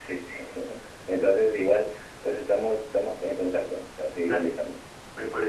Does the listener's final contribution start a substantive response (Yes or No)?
Yes